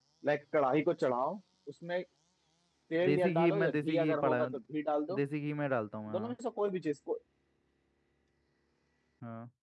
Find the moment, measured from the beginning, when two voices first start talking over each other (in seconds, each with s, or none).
3.0 s